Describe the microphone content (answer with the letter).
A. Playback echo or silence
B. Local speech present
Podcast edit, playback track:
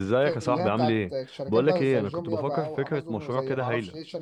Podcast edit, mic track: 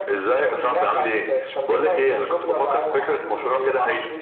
A